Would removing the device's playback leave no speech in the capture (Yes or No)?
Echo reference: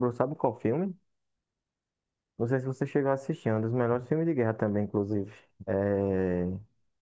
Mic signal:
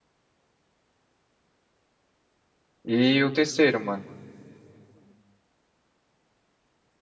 No